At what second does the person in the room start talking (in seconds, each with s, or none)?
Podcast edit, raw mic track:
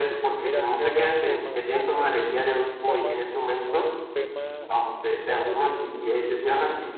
0.4 s